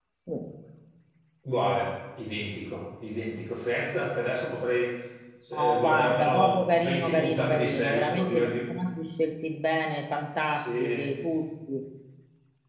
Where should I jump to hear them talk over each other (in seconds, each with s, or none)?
5.5 s